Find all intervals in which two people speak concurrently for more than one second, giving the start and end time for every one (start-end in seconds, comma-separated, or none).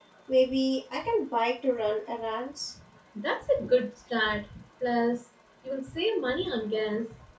none